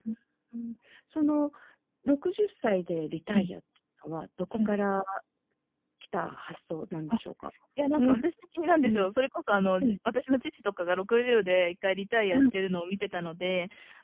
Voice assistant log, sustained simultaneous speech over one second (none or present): none